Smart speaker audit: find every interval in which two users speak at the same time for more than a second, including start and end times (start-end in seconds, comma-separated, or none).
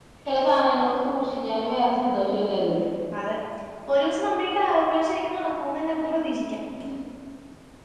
none